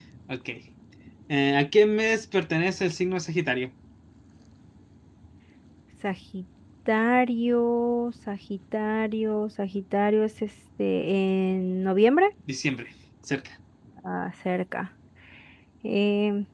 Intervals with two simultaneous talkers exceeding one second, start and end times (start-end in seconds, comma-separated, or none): none